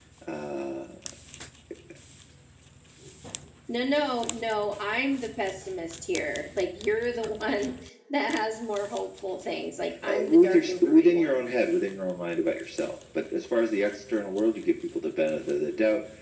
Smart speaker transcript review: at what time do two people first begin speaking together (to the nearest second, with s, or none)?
10 s